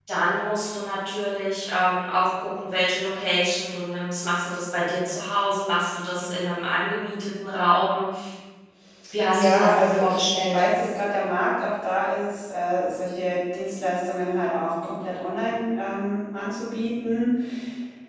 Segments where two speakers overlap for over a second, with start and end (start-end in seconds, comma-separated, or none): 9.3-10.6